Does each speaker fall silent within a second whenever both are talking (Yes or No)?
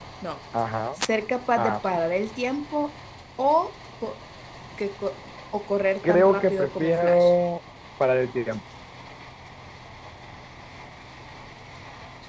No